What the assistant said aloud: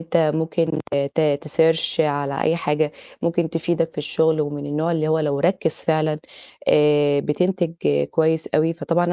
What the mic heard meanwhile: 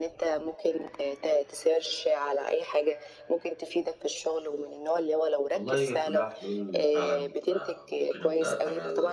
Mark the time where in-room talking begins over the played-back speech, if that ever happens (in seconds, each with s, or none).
5.5 s